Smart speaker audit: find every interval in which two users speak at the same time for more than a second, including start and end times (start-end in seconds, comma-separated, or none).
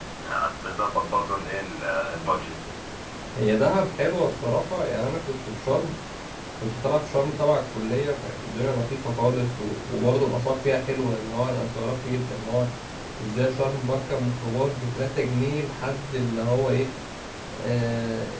none